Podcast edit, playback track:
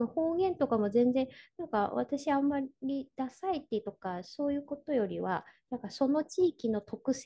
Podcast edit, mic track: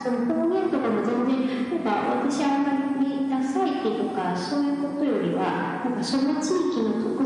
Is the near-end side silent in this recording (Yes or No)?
Yes